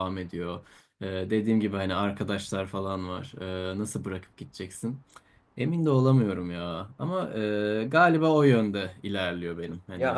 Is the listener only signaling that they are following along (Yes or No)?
No